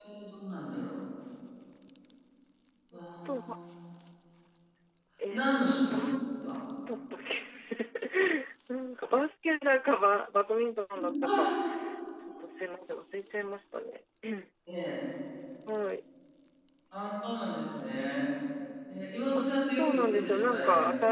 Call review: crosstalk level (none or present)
present